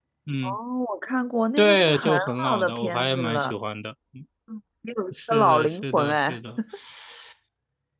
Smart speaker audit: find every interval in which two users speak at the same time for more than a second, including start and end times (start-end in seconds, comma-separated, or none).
1.6-3.5, 5.1-6.4